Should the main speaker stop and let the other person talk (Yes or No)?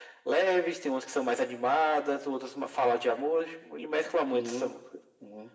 Yes